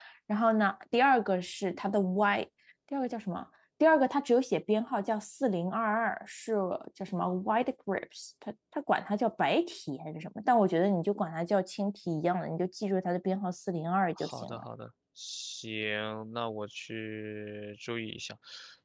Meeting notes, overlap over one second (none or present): none